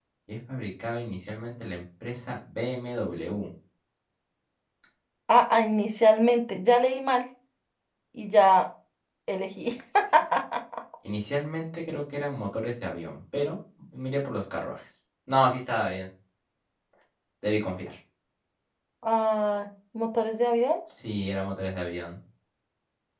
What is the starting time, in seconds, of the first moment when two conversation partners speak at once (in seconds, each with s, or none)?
none